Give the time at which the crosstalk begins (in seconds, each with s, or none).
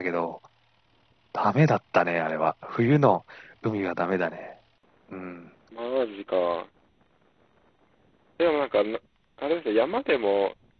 none